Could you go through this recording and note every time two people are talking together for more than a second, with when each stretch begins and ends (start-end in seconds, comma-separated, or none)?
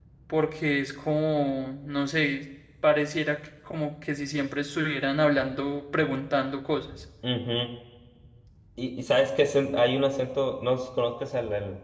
none